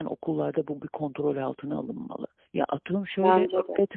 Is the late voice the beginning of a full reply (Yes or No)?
No